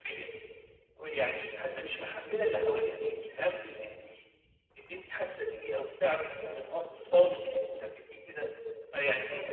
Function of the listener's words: listening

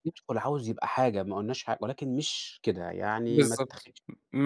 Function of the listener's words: taking over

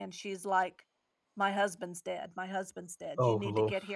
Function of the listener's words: listening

